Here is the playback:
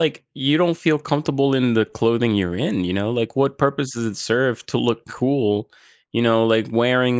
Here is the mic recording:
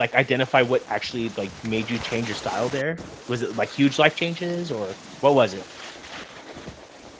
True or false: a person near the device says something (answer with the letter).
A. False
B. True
B